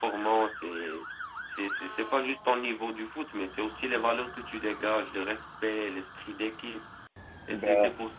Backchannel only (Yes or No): Yes